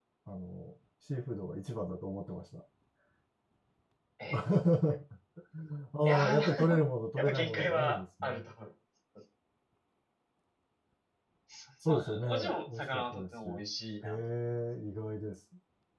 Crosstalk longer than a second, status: present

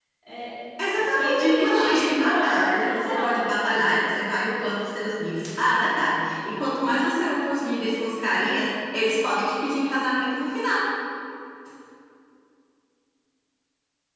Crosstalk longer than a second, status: present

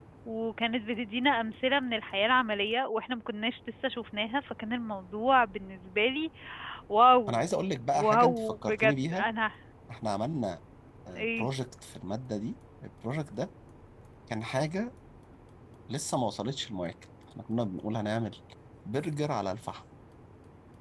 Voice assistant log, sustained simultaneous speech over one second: present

